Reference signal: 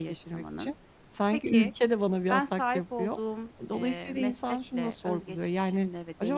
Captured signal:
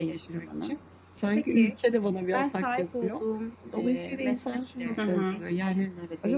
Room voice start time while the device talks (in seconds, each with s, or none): 5.0 s